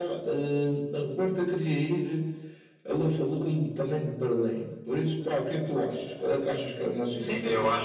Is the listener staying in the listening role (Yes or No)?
No